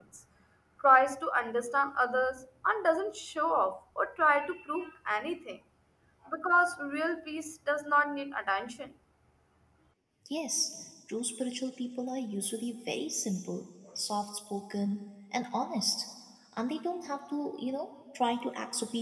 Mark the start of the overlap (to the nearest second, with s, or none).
none